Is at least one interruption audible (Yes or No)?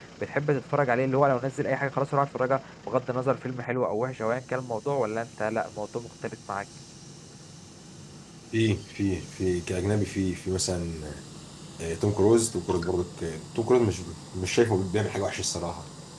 No